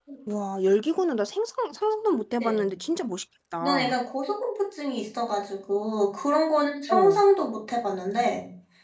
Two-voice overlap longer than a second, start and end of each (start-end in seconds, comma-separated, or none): none